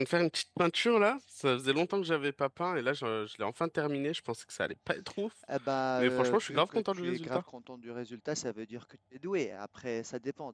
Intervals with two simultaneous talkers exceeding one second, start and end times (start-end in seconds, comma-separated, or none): 6.0-7.4